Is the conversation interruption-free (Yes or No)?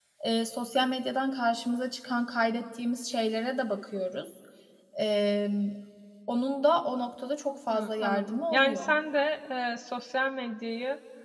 No